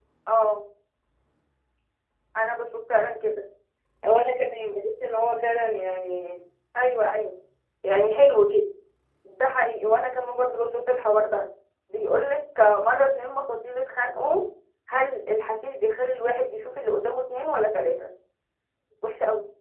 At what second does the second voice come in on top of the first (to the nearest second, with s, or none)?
none